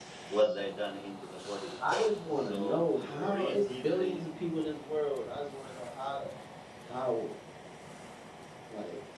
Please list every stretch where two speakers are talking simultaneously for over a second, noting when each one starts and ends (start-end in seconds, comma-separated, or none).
2.4-4.2